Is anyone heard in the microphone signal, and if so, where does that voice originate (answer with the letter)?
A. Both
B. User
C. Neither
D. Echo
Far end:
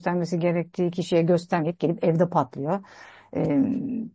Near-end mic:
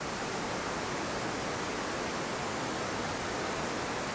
C